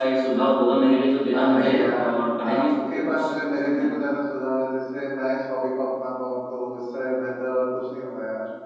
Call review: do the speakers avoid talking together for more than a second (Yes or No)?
No